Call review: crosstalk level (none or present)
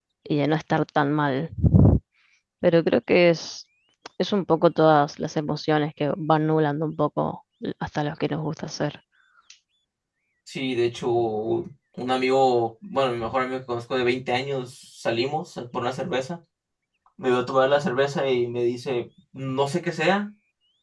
none